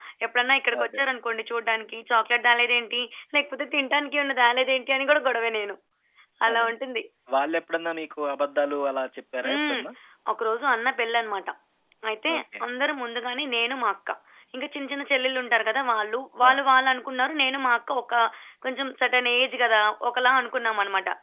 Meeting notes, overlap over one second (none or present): none